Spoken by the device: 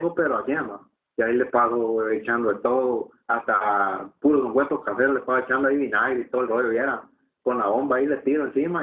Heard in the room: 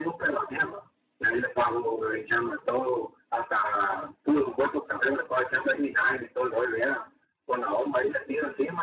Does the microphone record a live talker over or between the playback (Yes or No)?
No